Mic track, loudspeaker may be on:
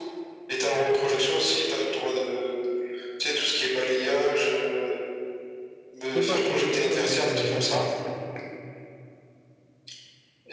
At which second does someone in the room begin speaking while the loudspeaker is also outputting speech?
6.0 s

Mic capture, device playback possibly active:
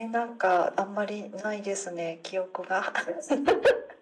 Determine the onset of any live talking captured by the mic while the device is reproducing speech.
none

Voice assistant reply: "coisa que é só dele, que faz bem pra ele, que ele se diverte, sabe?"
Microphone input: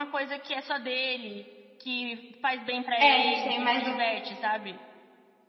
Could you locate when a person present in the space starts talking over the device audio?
3.0 s

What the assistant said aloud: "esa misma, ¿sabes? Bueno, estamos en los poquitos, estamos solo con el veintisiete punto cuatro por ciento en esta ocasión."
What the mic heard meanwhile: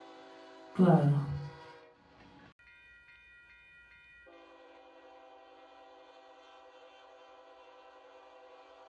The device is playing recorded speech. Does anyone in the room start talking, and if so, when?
0.7 s

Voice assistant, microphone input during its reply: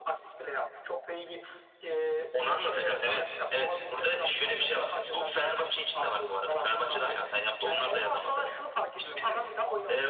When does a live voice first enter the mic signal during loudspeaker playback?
none

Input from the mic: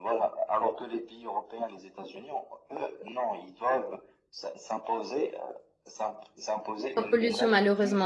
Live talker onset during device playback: 6.9 s

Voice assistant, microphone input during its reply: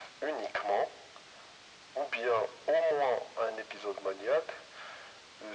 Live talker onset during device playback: none

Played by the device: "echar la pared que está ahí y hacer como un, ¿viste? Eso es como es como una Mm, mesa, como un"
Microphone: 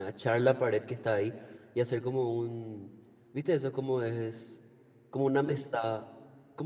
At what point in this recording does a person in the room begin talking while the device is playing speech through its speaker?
none

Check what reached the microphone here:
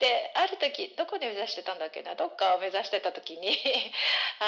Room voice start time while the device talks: none

